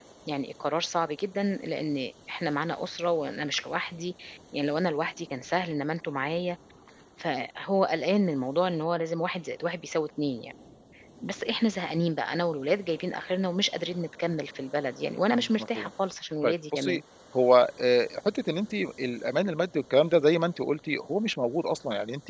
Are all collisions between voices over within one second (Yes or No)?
Yes